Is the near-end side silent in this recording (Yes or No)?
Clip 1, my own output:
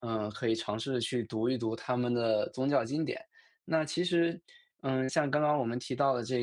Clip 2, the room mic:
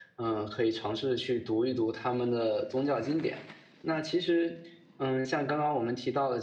Yes